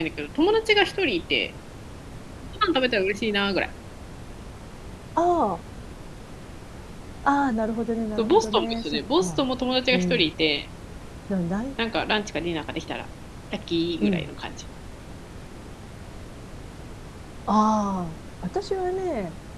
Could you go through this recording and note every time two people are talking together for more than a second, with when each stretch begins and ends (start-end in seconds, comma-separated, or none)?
8.2-9.4